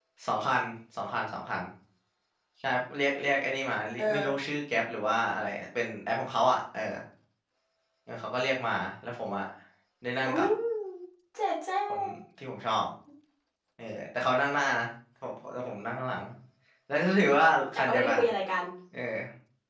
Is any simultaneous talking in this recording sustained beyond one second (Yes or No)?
No